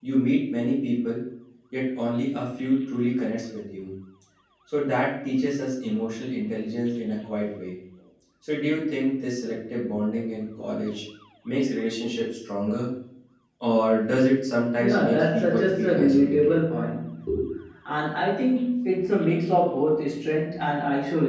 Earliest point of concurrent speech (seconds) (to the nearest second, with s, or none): 15 s